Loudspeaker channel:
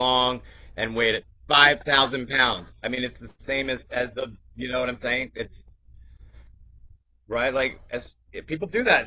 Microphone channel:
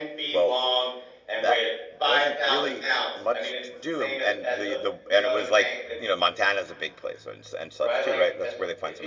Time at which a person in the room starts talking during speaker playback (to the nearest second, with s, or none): 0 s